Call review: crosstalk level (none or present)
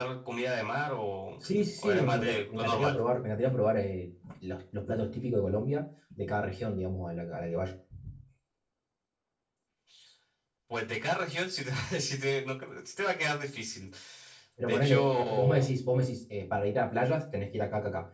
present